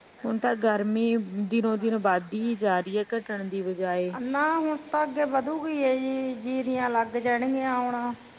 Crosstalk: none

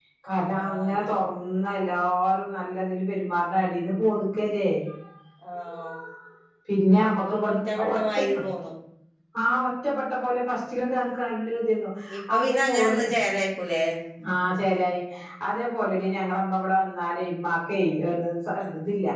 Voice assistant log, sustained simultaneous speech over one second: present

